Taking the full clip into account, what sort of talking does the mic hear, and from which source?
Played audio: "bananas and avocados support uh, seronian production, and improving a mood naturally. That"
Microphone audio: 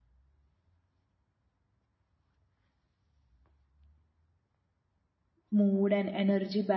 user only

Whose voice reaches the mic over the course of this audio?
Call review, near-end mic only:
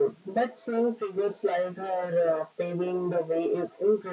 echo only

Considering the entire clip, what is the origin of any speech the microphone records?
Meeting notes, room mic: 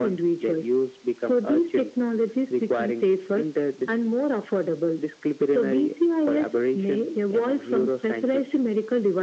echo only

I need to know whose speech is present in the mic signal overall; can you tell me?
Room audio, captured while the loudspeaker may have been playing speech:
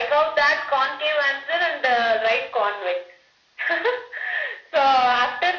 echo only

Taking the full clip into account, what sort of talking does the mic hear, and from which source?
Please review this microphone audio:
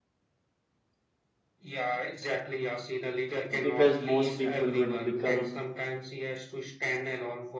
both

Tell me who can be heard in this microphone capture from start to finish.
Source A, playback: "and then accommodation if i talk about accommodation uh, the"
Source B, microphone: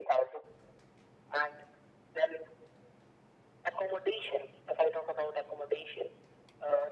echo only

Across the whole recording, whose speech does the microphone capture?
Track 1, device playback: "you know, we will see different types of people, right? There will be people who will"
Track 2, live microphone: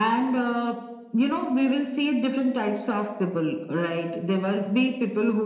echo only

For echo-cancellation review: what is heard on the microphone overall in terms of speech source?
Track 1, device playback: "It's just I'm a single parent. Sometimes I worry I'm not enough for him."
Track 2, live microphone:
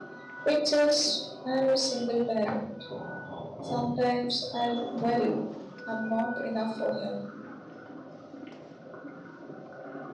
echo only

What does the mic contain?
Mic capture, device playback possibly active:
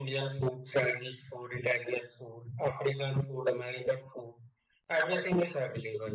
echo only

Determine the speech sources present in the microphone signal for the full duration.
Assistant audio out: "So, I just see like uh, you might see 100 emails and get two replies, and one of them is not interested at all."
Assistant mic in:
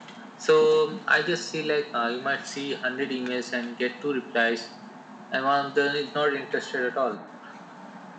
echo only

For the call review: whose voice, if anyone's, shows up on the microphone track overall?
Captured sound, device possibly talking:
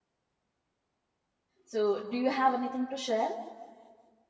user only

